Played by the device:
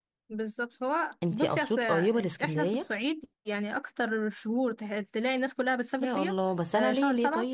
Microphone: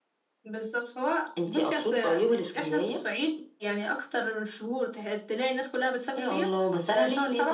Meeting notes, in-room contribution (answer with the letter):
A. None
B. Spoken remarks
A